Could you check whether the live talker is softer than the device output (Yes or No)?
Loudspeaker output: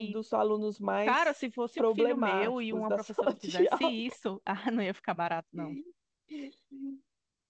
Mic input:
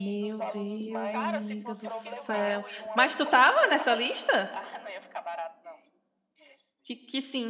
No